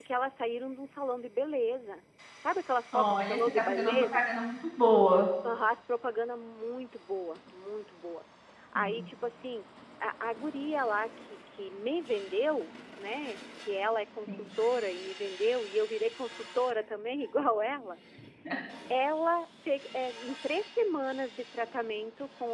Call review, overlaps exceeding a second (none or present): present